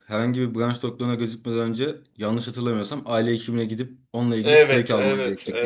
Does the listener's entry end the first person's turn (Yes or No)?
Yes